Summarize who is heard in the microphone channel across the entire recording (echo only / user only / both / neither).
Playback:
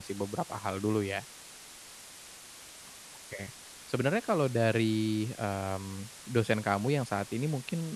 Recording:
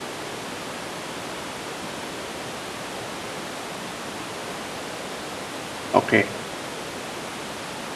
user only